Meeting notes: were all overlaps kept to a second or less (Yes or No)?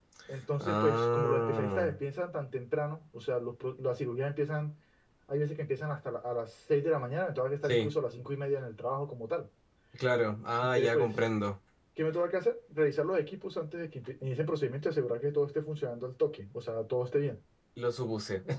No